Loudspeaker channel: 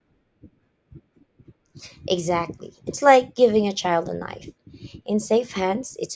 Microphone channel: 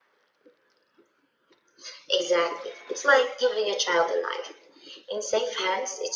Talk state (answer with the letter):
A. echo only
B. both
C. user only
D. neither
A